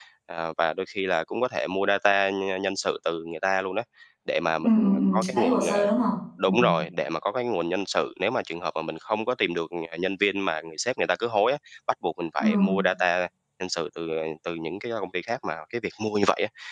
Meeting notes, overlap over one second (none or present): present